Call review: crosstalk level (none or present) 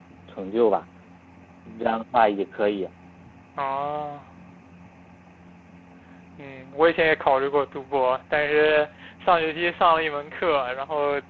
none